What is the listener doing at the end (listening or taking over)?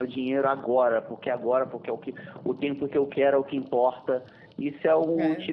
listening